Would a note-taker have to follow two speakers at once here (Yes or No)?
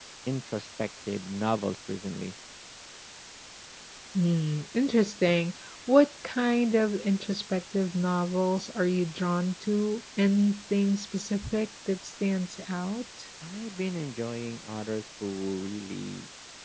No